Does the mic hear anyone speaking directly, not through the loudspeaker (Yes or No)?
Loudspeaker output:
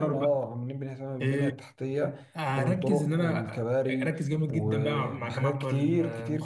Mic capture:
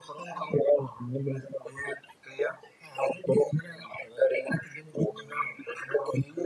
No